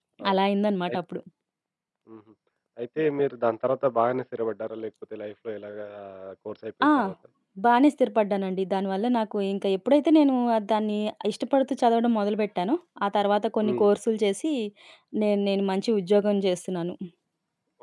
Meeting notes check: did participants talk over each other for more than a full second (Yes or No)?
No